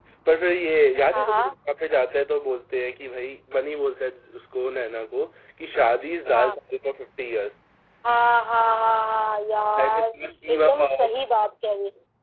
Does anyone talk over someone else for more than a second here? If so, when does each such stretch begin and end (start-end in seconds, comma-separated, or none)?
9.8-11.1